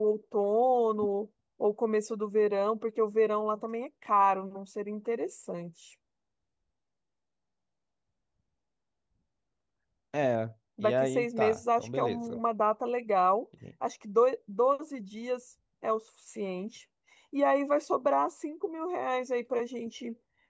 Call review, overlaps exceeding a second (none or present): present